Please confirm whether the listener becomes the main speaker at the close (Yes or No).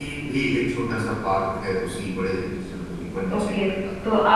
Yes